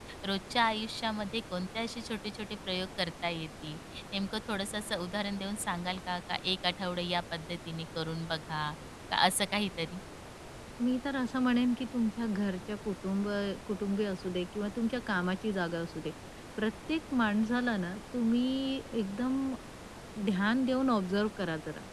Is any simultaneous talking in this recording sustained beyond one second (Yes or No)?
No